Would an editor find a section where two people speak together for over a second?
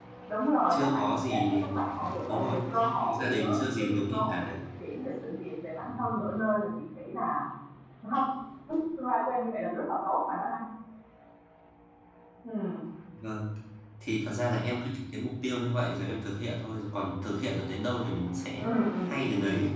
Yes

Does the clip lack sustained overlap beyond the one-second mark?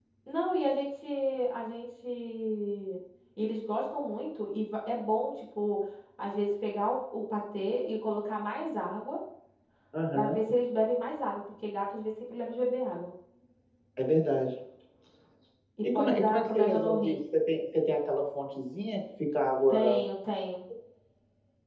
No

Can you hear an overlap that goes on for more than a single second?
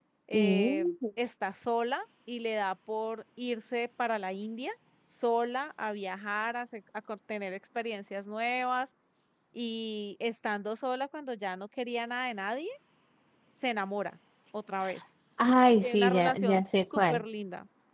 Yes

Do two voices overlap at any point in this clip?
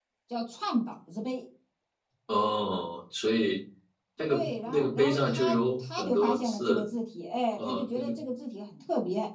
Yes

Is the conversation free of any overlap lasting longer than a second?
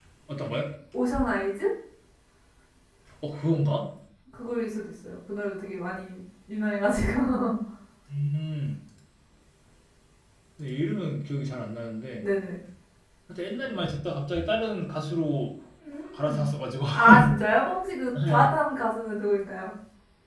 Yes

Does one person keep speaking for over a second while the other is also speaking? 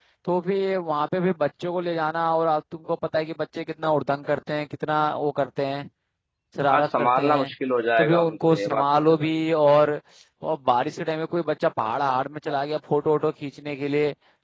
Yes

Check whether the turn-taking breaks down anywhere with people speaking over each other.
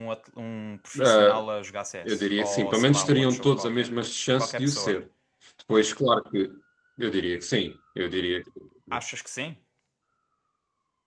Yes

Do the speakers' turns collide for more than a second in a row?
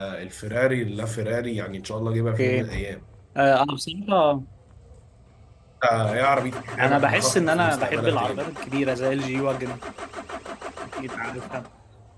Yes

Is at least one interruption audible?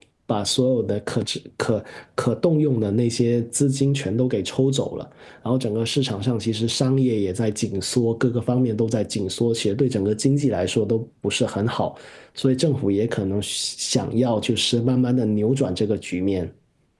No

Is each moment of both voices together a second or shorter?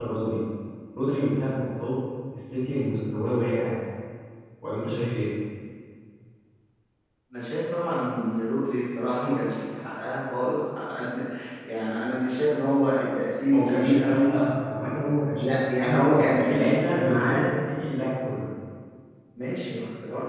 No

